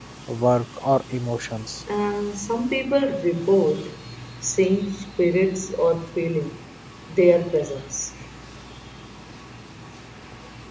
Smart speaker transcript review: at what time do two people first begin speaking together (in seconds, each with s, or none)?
none